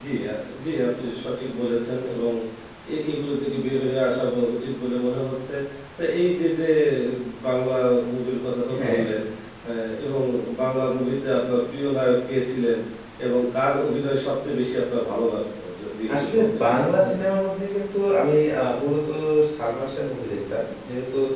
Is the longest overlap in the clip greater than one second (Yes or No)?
No